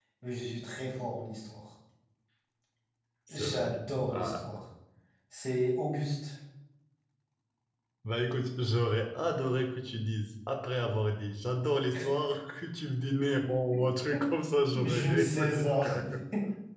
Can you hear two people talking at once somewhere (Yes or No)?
Yes